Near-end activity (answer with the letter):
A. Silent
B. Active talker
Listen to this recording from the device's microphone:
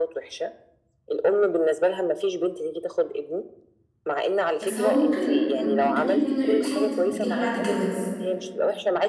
B